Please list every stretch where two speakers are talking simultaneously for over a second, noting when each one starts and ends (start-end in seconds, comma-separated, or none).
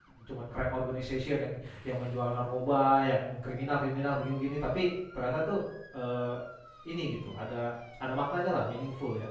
none